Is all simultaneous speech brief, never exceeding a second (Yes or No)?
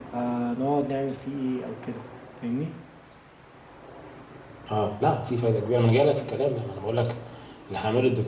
Yes